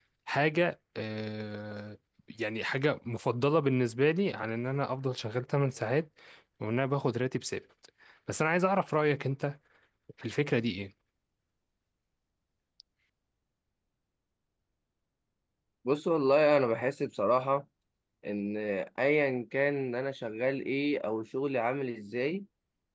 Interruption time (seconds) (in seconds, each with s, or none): none